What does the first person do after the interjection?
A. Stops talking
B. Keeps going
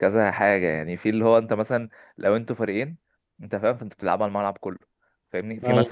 B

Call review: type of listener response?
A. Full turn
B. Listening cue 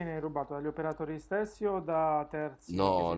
A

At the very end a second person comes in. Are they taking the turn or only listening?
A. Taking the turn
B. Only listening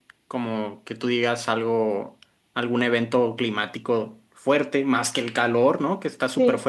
B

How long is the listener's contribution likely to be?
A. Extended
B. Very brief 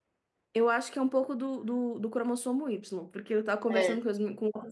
B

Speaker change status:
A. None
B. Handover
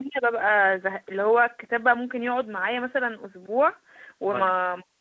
A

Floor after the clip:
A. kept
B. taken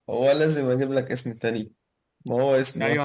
B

